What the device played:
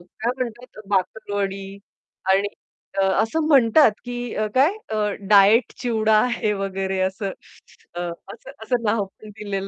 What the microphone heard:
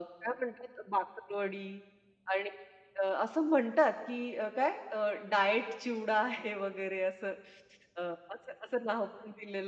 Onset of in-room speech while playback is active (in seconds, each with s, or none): none